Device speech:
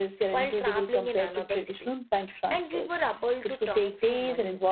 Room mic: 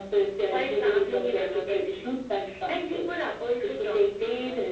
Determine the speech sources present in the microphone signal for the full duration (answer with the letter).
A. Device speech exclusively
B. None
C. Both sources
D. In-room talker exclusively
A